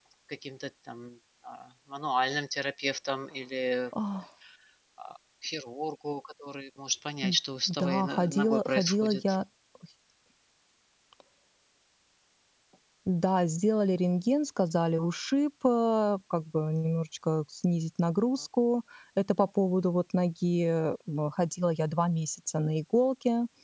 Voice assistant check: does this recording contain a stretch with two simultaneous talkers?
Yes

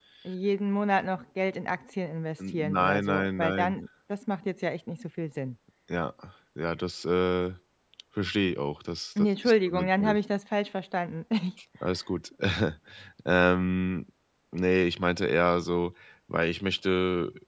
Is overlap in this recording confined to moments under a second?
No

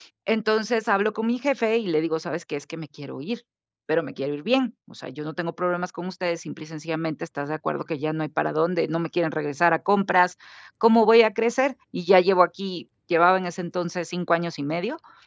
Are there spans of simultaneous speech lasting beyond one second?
No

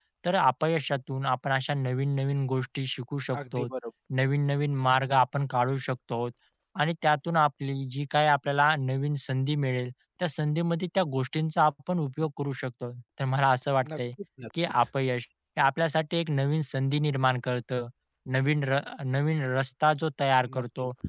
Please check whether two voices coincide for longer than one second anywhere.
No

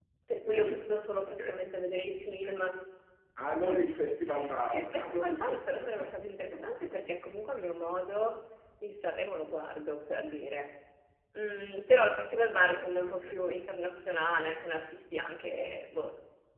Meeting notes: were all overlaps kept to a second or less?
No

